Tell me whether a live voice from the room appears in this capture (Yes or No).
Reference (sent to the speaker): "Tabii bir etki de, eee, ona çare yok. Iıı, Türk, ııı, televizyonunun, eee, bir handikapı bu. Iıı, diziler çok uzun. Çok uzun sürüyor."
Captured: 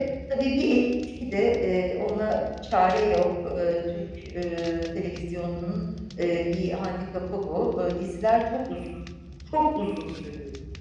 No